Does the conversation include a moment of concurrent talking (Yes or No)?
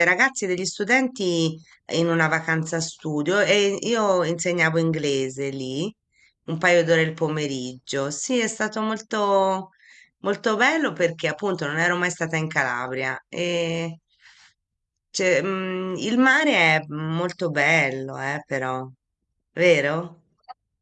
No